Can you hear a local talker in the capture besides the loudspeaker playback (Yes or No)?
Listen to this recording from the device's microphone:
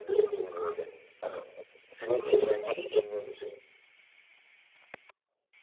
No